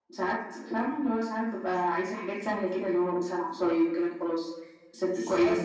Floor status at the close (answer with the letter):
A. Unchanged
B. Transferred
B